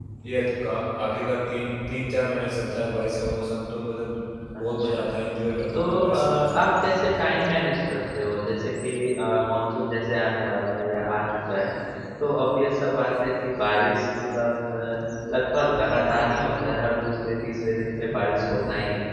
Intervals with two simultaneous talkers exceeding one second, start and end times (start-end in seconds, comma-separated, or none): 5.7-7.0